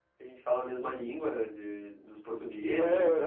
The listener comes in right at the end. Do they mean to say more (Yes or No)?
Yes